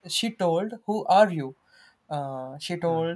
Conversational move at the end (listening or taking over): listening